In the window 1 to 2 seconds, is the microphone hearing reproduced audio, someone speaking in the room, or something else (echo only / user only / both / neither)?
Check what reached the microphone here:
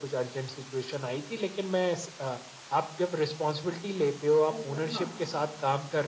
echo only